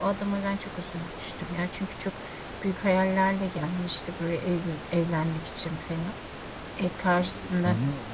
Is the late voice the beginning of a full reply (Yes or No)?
Yes